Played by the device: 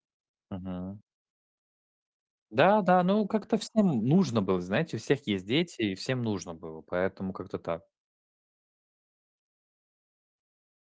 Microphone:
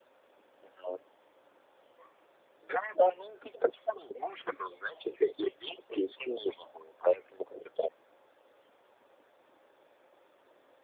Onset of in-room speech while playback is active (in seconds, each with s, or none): none